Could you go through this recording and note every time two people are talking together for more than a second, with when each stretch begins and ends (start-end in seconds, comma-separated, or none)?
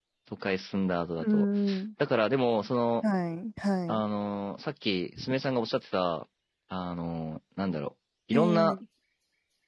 none